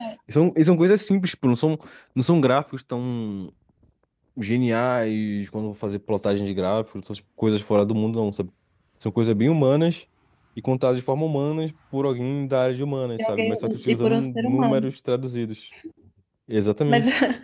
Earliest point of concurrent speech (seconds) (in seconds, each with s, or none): 13.2 s